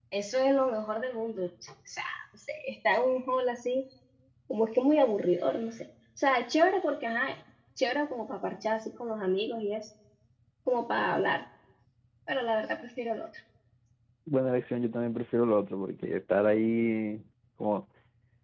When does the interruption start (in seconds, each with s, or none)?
none